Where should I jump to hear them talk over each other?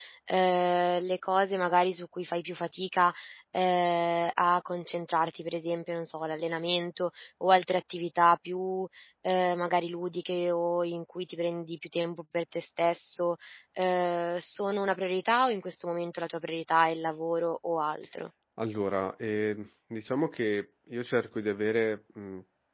none

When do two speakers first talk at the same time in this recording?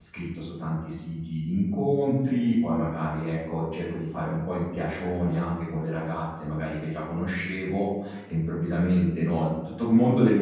none

